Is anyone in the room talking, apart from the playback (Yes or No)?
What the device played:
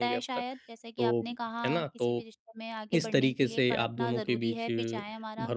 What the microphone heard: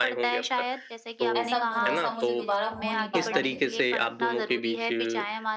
Yes